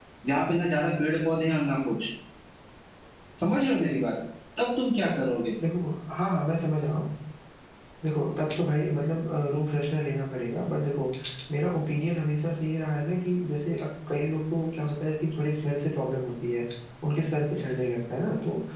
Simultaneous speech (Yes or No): No